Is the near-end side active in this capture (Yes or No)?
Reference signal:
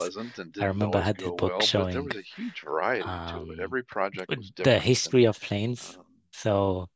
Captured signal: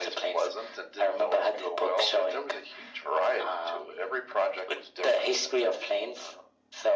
No